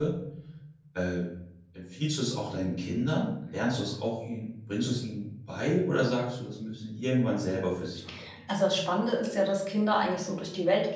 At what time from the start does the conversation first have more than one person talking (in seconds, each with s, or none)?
none